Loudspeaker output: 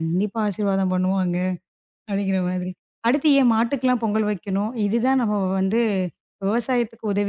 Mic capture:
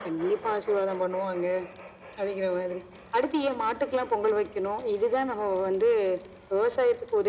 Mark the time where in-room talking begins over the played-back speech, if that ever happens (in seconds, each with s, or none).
none